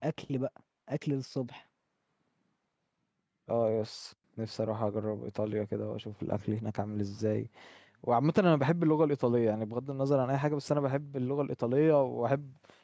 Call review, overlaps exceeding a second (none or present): none